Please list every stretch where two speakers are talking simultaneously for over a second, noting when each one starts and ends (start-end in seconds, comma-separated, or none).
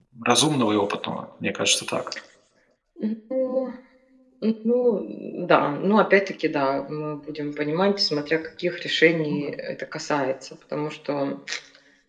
none